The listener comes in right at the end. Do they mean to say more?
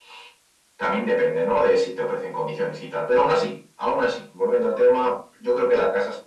No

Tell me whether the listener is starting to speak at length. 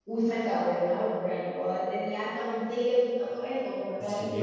Yes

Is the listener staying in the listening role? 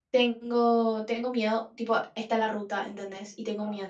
Yes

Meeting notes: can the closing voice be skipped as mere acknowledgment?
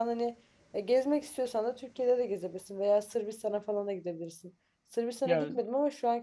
Yes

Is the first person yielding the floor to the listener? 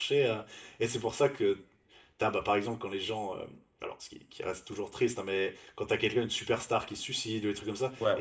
No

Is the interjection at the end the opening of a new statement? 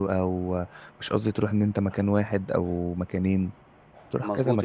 Yes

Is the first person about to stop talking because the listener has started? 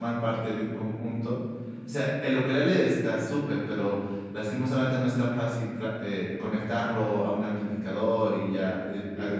No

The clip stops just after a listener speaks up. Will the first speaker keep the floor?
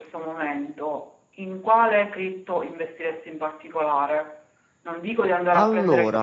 Yes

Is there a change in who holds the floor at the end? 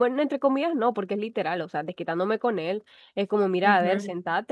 No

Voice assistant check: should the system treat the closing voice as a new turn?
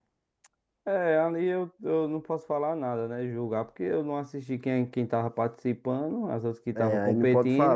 Yes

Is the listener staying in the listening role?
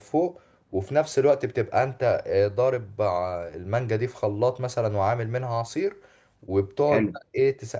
Yes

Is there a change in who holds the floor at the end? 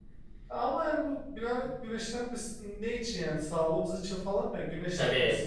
Yes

